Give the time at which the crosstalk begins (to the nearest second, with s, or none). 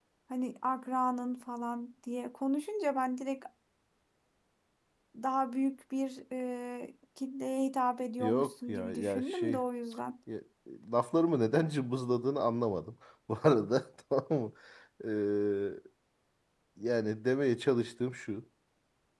8 s